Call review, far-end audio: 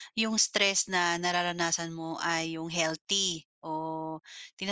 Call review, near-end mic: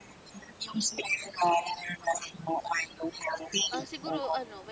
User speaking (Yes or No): Yes